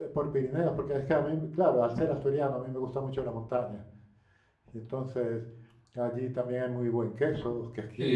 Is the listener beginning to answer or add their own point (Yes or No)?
Yes